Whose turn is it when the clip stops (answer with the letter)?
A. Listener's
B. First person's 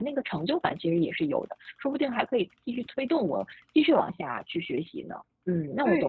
A